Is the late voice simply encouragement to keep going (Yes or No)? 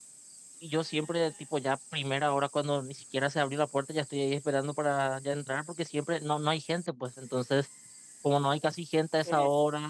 Yes